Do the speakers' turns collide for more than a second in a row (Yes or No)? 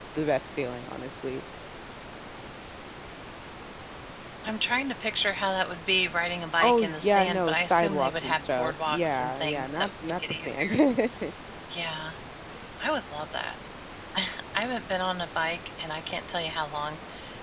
Yes